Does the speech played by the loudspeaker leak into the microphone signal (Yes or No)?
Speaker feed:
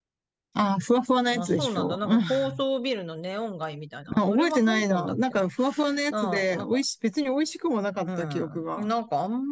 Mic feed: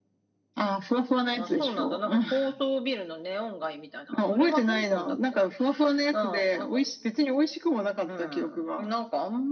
Yes